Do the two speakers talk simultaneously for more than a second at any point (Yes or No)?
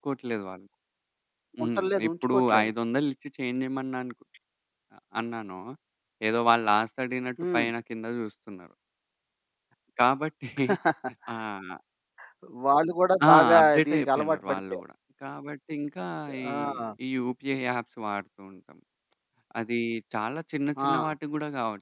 Yes